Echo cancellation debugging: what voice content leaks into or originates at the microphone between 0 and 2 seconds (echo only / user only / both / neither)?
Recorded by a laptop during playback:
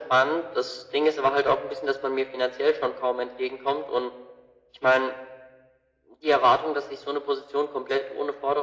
echo only